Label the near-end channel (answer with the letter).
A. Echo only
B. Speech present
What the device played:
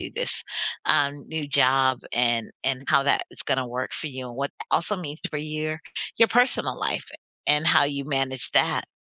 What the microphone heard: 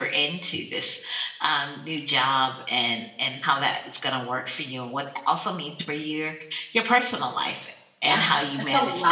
B